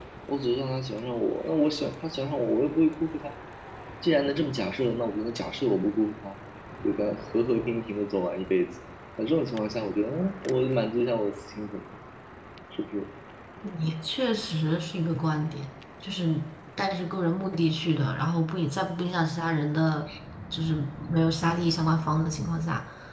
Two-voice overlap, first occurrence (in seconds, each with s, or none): none